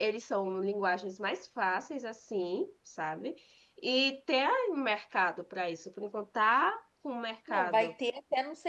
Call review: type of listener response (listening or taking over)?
taking over